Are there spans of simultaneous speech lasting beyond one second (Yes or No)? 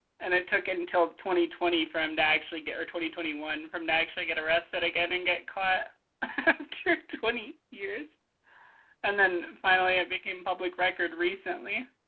No